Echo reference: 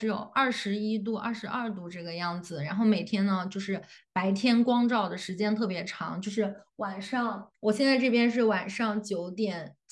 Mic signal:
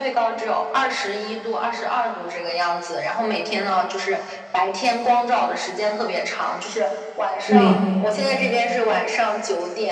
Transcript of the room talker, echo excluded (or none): 对